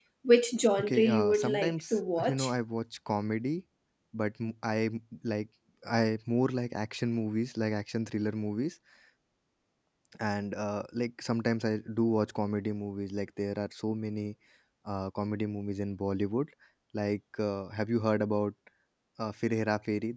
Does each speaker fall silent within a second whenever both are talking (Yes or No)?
No